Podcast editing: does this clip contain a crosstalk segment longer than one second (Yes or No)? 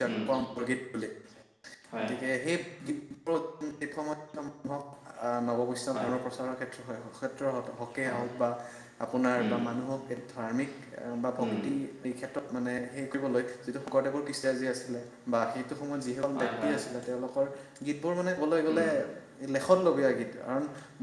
No